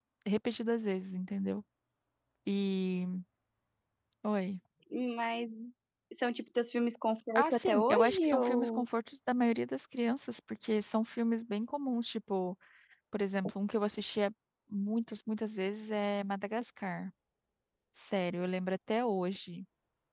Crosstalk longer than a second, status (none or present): present